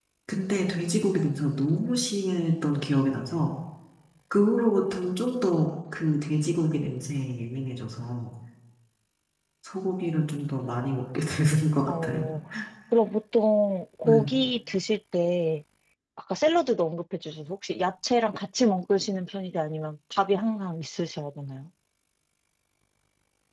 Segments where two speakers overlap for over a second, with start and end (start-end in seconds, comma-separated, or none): none